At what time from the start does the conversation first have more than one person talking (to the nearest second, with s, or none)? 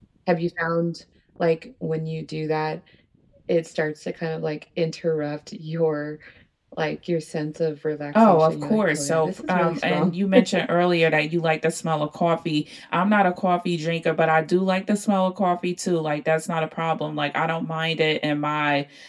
8 s